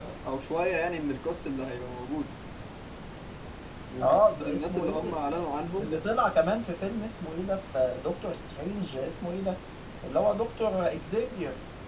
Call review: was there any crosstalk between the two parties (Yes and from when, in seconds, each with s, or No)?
Yes, from 4.0 s